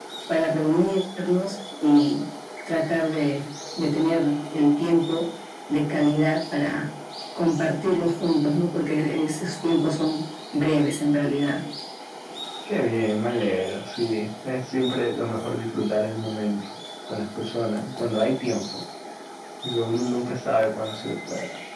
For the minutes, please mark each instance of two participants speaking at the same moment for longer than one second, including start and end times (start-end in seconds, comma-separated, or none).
none